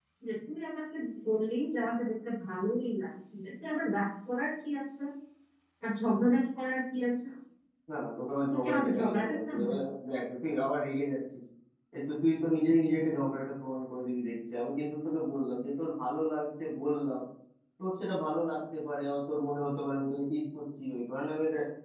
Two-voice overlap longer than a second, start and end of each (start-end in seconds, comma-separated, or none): 8.5-9.8